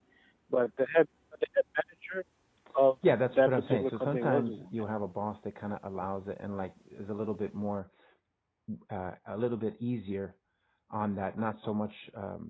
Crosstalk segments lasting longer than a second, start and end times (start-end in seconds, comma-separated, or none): 3.3-4.8